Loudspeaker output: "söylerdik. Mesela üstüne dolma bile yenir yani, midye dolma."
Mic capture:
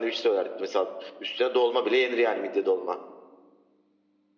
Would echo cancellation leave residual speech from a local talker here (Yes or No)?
No